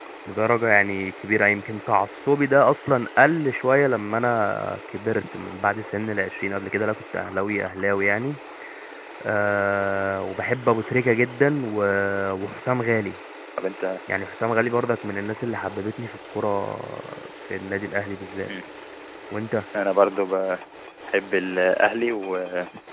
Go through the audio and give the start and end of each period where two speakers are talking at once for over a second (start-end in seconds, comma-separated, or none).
none